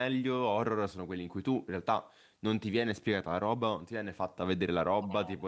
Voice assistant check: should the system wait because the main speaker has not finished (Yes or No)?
Yes